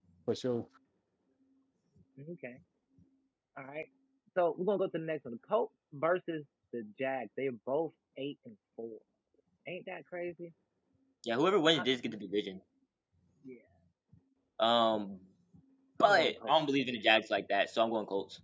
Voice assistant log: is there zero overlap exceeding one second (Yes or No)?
Yes